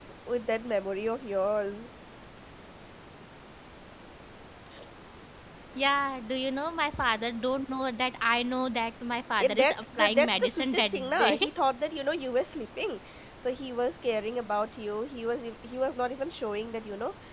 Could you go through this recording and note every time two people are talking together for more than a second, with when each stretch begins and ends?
9.4-11.4

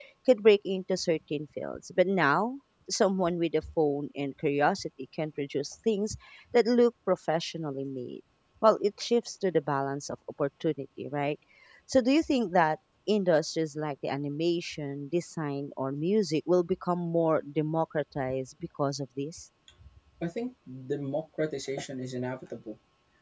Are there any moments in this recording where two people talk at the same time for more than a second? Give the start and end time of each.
none

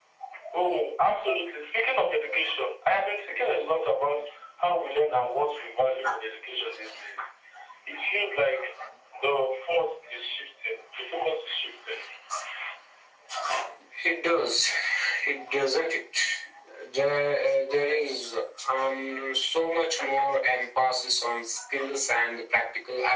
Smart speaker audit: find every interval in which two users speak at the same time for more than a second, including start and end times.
none

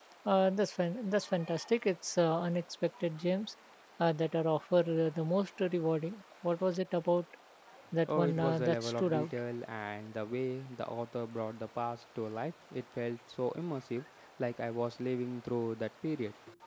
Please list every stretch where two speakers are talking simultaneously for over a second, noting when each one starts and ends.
8.1-9.3

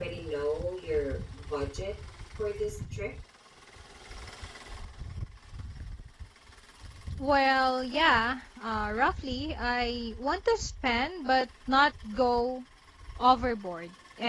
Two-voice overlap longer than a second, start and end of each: none

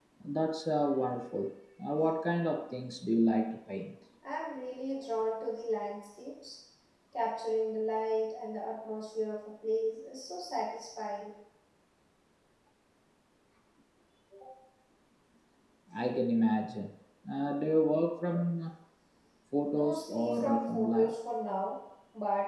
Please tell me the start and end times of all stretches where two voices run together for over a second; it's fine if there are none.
19.7-21.1

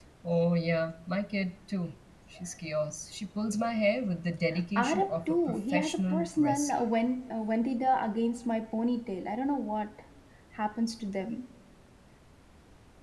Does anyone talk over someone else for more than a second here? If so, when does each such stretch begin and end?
4.8-6.8

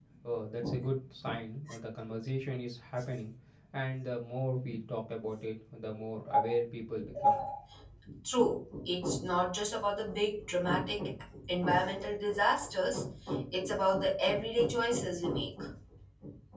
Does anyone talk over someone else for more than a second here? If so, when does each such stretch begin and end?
none

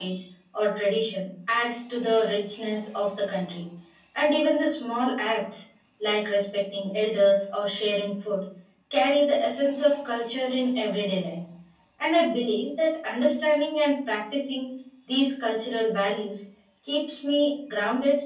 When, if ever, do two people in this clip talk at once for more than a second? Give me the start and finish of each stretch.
none

